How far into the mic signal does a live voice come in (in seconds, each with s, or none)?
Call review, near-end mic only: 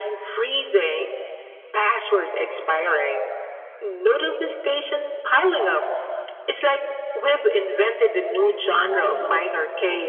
8.3 s